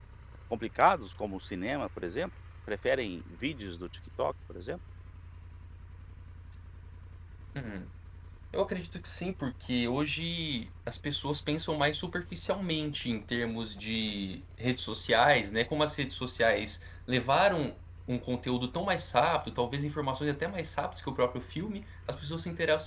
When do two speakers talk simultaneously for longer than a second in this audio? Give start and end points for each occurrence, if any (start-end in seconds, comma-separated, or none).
none